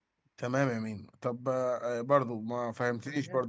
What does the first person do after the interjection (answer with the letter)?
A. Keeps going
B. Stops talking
A